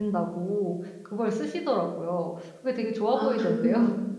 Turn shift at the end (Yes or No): Yes